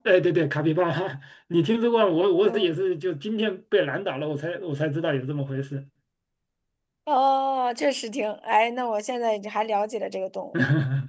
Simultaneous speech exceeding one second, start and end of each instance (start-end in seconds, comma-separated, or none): none